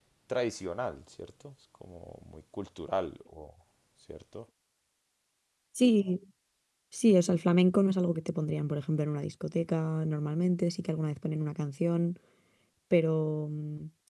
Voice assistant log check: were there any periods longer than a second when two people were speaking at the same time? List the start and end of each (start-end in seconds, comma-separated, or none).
none